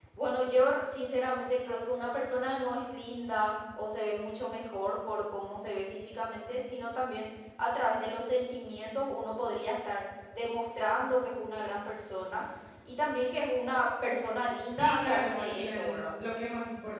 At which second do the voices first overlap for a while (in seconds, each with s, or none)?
14.7 s